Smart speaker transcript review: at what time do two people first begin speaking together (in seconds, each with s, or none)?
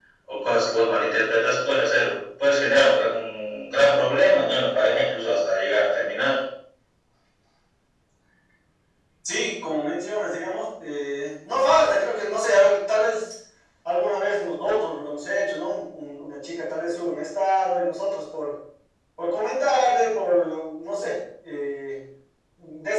none